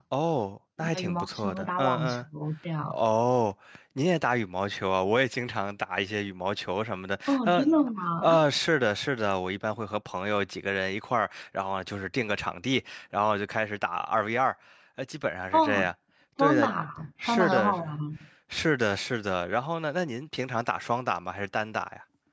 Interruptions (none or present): present